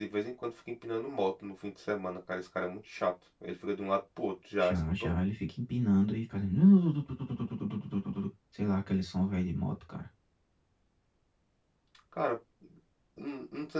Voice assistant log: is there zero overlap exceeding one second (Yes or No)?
Yes